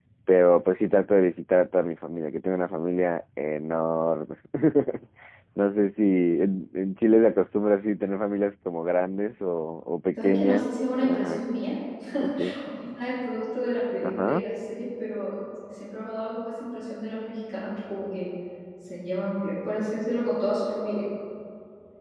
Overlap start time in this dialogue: 10.2 s

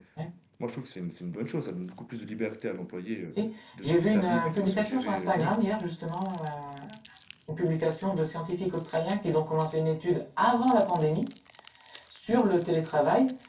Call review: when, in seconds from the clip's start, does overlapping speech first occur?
3.8 s

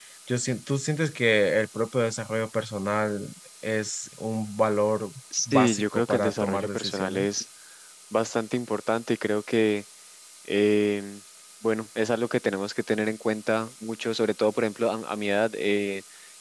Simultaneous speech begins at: 5.3 s

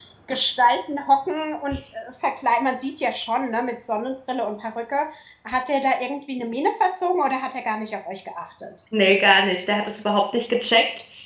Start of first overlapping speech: none

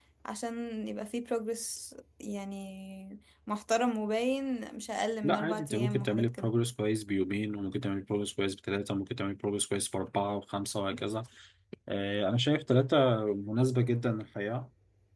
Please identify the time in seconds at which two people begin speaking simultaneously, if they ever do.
5.2 s

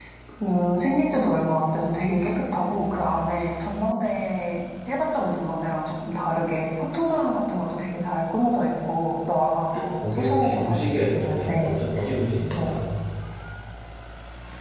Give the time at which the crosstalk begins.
9.8 s

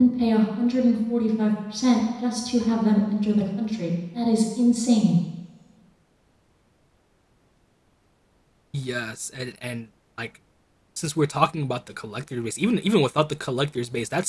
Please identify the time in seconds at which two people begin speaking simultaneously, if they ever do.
none

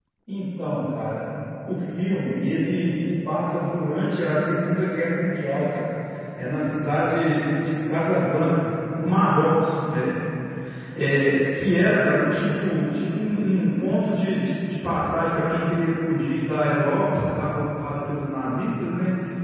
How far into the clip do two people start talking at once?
none

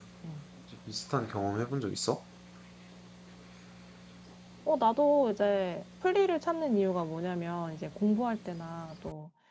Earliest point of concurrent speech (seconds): none

